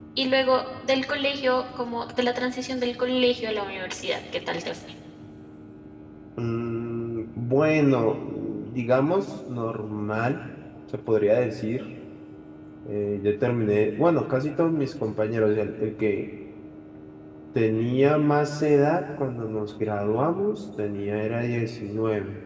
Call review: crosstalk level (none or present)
none